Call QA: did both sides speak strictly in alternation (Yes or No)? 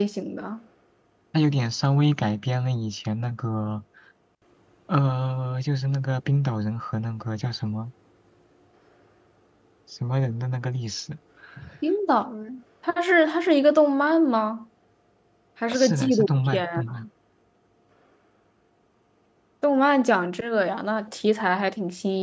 No